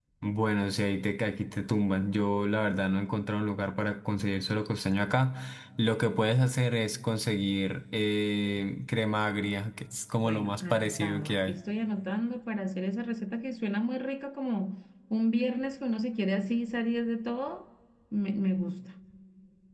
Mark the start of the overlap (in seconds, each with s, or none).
10.2 s